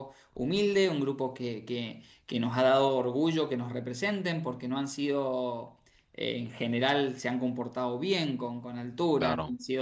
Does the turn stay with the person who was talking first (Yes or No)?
Yes